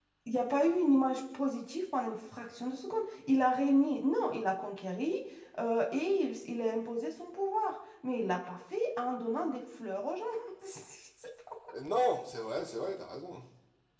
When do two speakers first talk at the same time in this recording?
none

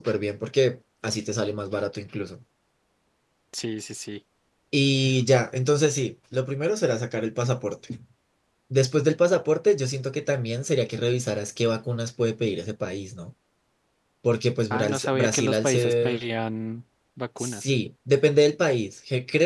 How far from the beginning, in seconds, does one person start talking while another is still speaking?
14.7 s

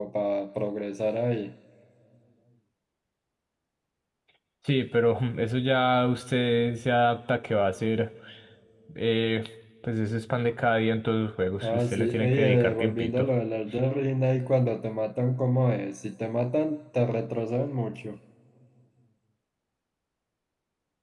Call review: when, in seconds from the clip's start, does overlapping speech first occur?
11.6 s

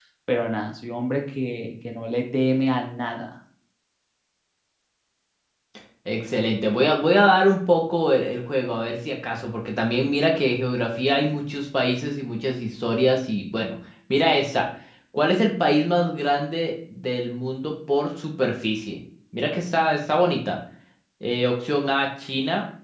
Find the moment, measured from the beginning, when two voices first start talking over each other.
none

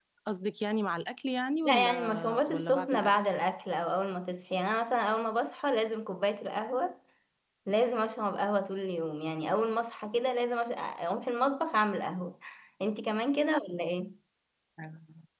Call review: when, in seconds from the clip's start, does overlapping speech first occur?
1.6 s

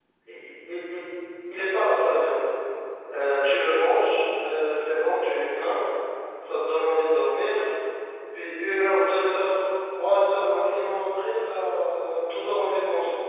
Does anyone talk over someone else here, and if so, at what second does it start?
none

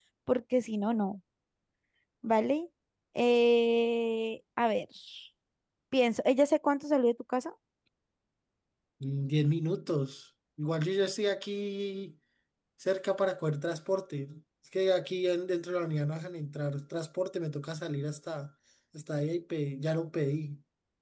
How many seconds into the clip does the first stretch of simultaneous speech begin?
none

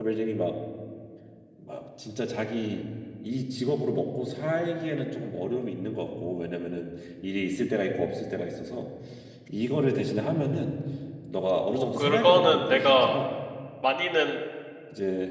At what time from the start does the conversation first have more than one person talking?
11.7 s

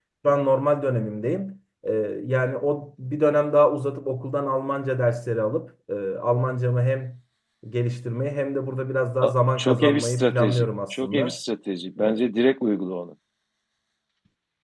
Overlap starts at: 9.2 s

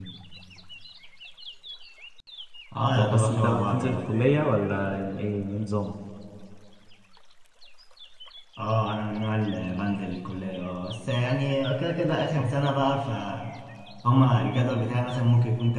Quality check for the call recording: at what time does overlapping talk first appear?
2.9 s

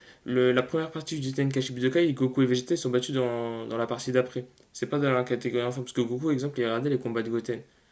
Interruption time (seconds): none

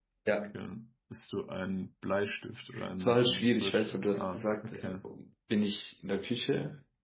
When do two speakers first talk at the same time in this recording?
3.0 s

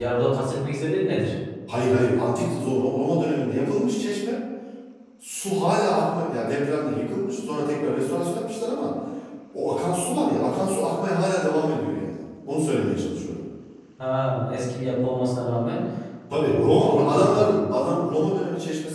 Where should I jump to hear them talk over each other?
16.3 s

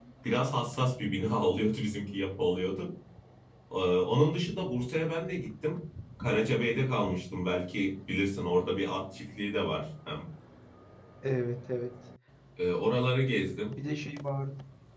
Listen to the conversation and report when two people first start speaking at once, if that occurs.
none

